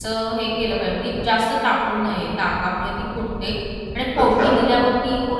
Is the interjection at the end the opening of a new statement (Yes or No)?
No